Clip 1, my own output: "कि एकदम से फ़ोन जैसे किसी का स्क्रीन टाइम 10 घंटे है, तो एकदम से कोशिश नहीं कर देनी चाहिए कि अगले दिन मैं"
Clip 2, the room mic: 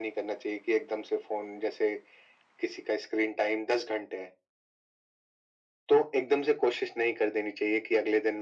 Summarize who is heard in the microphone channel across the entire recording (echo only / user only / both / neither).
echo only